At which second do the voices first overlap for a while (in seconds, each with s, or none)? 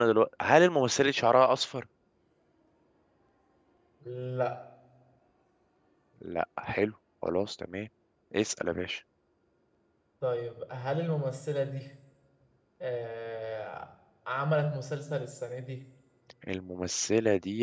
none